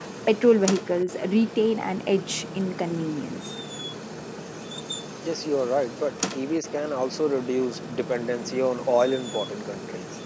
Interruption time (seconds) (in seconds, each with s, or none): none